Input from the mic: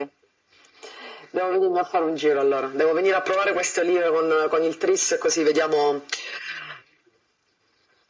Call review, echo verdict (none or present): present